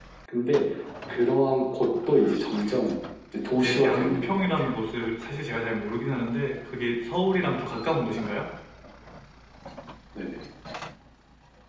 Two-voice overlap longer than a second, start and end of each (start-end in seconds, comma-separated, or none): 3.5-4.7